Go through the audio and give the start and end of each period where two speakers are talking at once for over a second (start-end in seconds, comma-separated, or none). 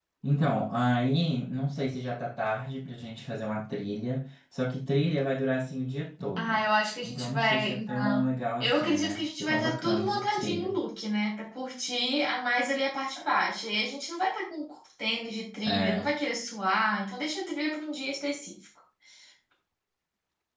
7.0-10.8